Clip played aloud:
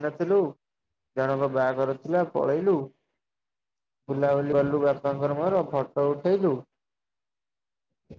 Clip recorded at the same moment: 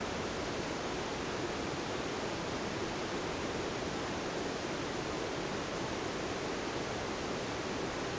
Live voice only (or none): none